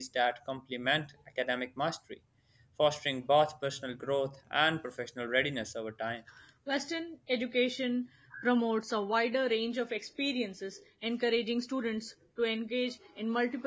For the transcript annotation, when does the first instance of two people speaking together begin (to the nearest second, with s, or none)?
none